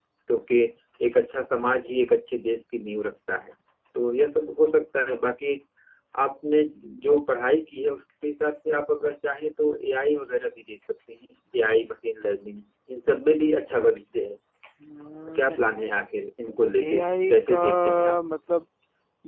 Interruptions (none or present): present